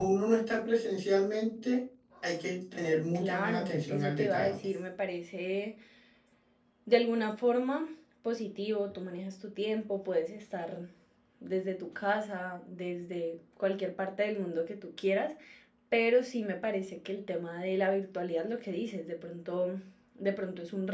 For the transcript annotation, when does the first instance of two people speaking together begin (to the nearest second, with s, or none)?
3 s